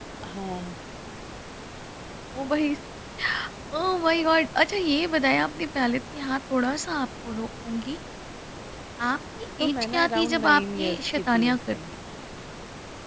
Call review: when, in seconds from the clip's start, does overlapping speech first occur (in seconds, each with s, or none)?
9.6 s